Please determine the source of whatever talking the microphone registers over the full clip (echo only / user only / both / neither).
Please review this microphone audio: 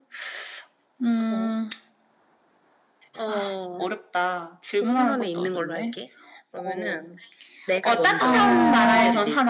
both